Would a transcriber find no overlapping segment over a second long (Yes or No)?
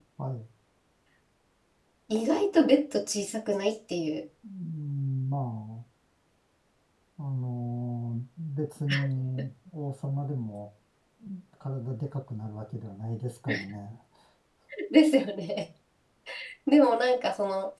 Yes